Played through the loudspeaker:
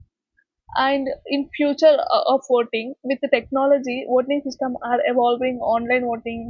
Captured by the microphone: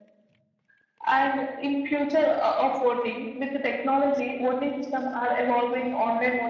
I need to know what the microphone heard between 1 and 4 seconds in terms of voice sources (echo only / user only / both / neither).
echo only